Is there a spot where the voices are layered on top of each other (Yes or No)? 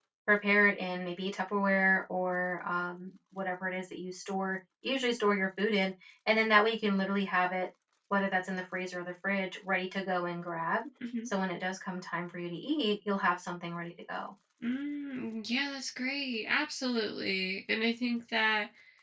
No